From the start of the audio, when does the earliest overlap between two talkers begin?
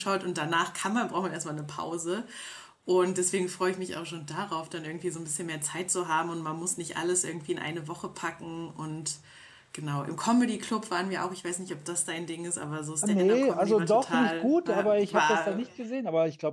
13.0 s

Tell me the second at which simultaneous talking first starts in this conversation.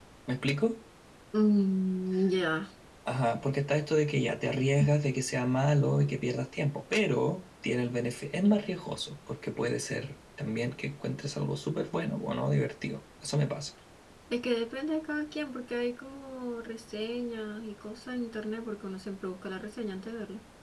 none

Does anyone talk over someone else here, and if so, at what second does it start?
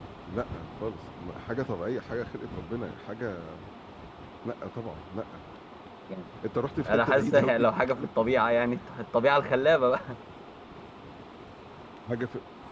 6.9 s

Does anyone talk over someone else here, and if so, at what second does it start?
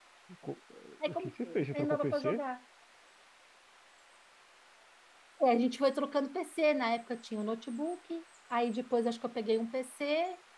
1.1 s

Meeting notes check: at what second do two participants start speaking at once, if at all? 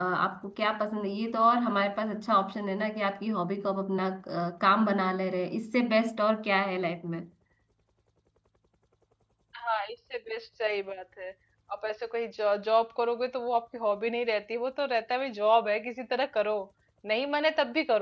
none

